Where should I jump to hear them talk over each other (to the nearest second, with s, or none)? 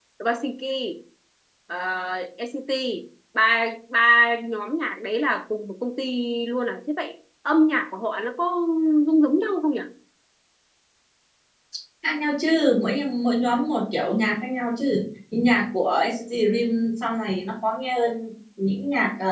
none